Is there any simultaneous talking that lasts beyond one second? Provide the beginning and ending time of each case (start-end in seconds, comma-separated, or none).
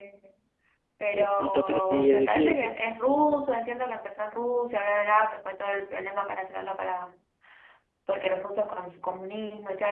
1.1-2.7